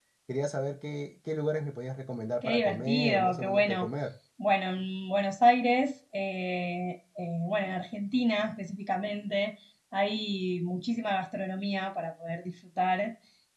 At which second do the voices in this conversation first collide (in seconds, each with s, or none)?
2.4 s